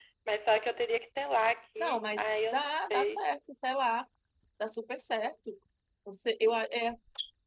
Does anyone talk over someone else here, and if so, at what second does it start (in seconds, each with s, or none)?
1.8 s